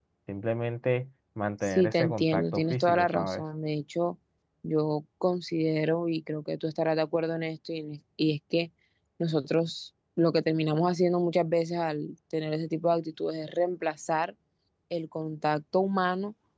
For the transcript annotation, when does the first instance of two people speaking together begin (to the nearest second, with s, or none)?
2 s